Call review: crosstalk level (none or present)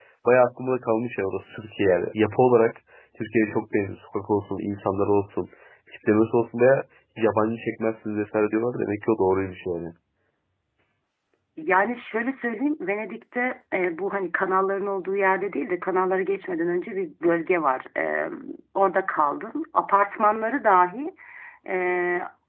none